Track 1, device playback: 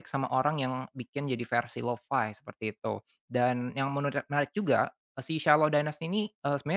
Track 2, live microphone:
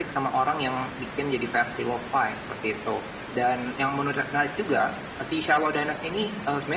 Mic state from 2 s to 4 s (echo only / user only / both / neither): echo only